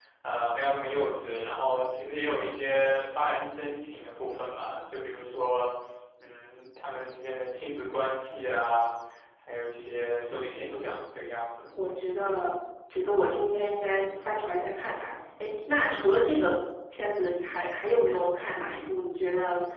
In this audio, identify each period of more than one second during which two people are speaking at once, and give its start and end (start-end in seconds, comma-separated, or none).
none